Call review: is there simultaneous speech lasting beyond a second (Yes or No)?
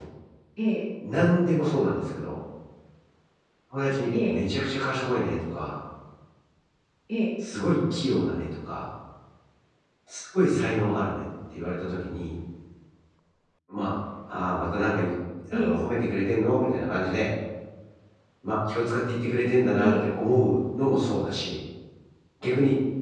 No